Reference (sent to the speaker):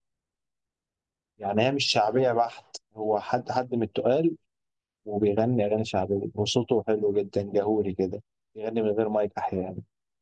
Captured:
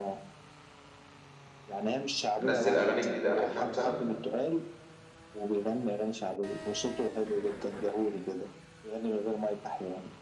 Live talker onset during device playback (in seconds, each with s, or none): 2.4 s